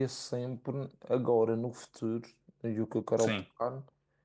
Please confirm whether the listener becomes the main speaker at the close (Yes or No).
No